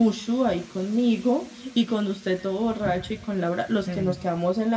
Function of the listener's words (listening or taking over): listening